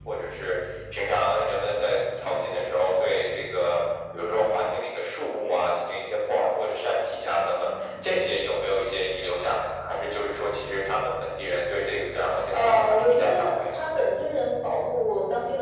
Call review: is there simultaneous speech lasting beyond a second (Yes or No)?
Yes